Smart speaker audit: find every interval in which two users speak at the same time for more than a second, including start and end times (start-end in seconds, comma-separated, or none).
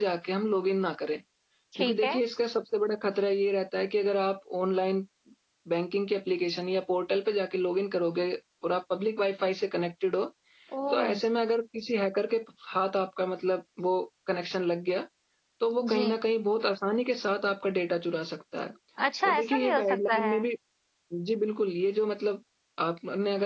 19.2-20.4